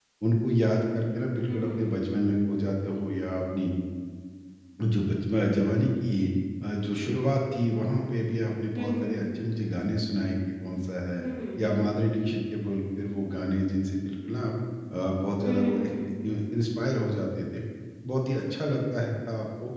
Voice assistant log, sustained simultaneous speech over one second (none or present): none